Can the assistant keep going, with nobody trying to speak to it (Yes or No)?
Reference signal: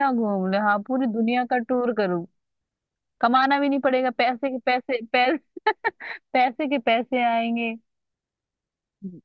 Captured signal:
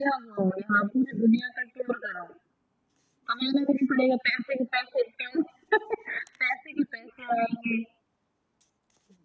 Yes